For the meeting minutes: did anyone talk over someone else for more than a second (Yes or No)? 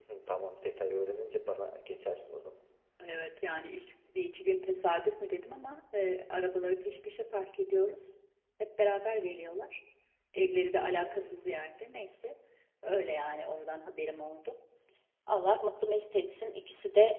No